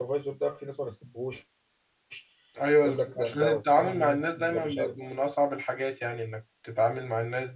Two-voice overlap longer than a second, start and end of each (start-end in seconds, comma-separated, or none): 2.8-4.9